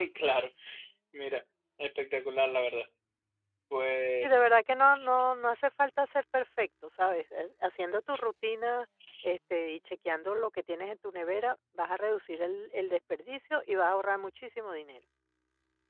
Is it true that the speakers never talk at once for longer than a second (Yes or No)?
Yes